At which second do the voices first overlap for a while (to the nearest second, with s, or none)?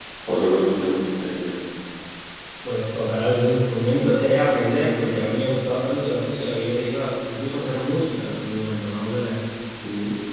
none